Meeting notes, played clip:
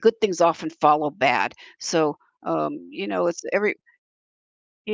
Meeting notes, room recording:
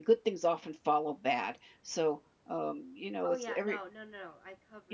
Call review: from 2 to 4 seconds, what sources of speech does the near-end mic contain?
both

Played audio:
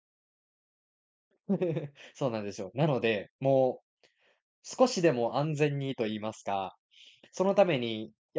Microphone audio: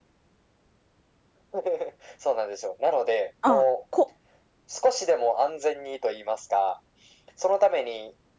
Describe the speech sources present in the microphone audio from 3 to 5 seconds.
both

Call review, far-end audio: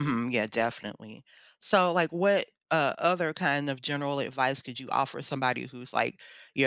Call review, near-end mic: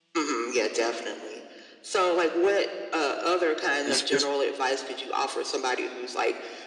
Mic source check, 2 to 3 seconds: echo only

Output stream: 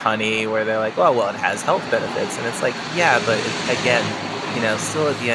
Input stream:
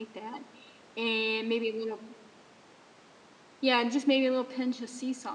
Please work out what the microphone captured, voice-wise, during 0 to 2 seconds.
user only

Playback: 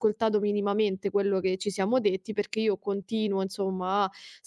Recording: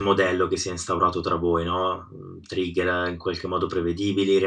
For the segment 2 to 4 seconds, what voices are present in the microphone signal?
user only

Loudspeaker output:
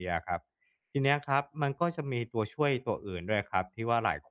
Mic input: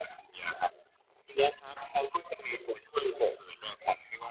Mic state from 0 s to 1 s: echo only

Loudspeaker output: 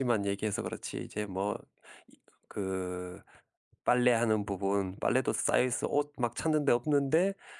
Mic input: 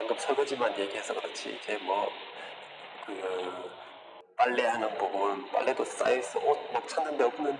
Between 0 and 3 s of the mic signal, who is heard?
echo only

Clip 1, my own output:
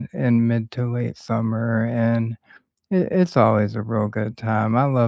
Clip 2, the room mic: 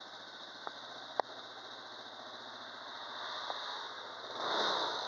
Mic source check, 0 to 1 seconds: neither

